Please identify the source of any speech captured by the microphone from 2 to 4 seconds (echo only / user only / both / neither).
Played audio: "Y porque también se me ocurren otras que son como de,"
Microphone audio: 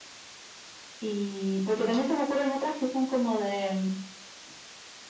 echo only